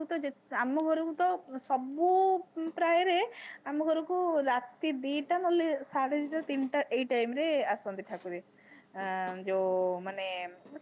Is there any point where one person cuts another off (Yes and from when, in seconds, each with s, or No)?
No